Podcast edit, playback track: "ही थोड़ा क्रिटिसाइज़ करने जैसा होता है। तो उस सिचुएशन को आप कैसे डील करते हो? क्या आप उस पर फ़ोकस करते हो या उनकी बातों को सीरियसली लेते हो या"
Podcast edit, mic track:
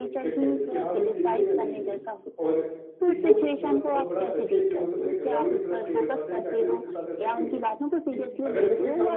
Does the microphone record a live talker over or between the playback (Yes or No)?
Yes